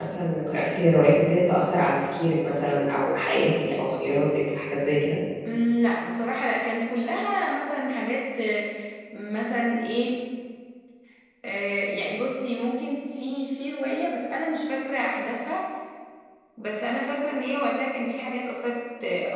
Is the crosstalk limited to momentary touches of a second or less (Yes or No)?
Yes